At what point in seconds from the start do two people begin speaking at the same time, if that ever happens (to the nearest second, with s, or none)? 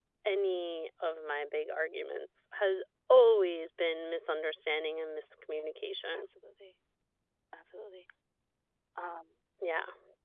none